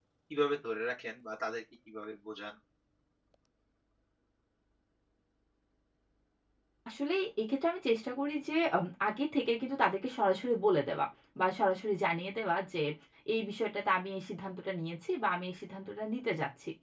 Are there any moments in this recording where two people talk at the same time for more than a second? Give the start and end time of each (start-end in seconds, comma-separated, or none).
none